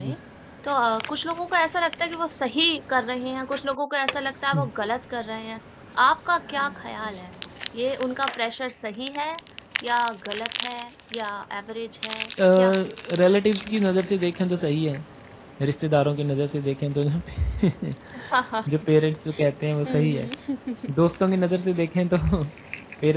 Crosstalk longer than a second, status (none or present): none